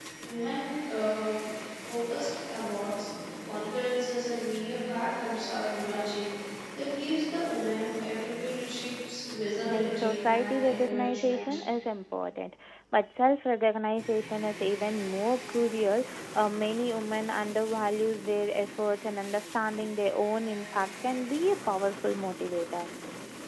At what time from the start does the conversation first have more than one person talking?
10 s

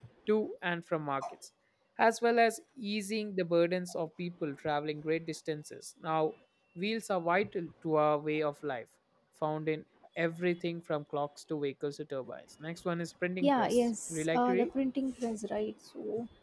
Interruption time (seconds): 13 s

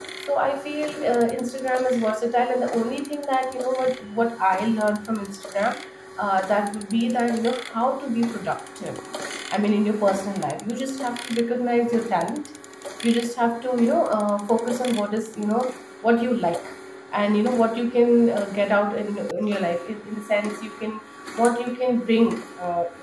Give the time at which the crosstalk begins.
none

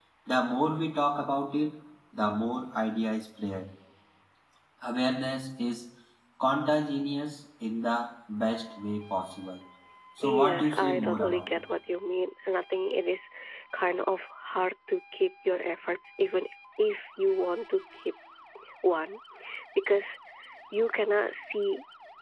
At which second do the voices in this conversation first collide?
10 s

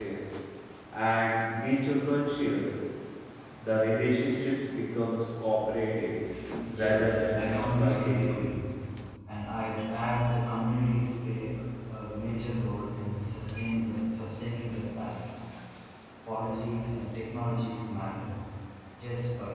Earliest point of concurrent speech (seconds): 7 s

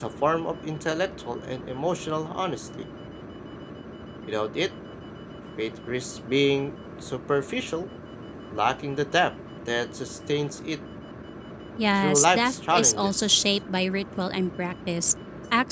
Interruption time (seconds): 12 s

